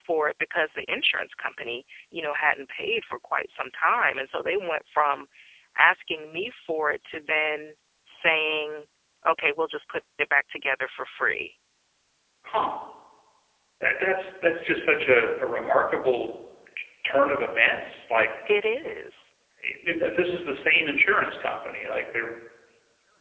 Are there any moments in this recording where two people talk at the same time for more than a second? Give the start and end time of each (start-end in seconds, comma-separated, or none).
none